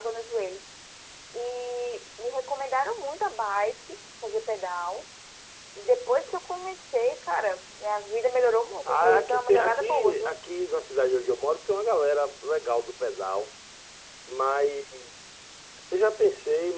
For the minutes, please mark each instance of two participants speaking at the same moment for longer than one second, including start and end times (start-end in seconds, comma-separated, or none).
8.8-10.4